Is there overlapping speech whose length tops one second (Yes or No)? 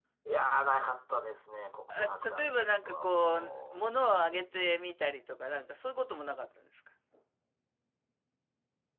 Yes